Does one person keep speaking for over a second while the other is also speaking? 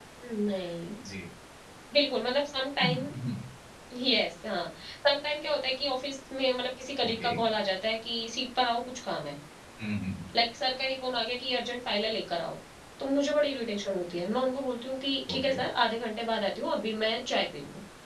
No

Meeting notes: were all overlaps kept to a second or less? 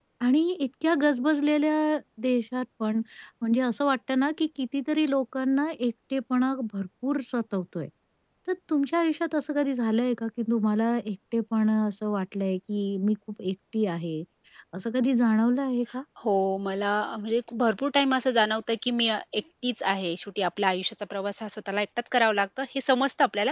Yes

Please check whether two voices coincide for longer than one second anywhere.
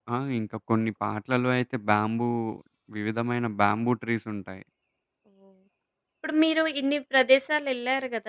No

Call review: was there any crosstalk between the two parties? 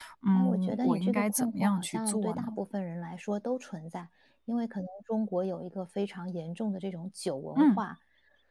Yes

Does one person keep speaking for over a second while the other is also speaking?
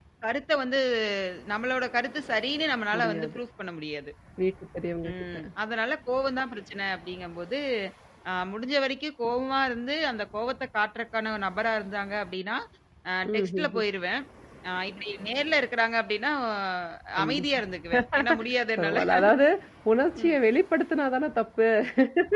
No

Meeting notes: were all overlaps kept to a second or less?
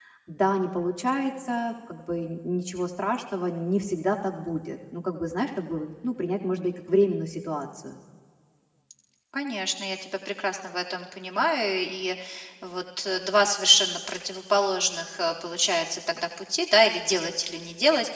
Yes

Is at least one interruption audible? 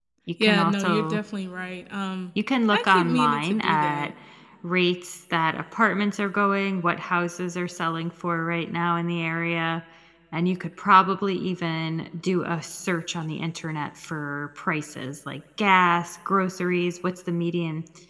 Yes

